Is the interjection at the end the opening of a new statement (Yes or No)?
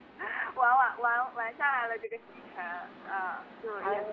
No